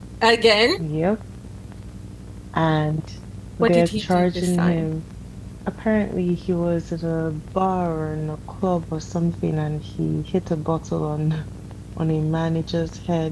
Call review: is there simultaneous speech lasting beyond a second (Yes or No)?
Yes